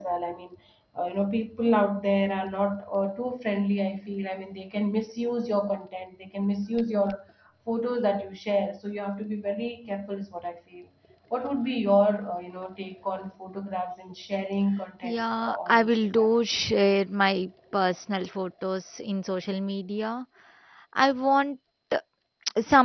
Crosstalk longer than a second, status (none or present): present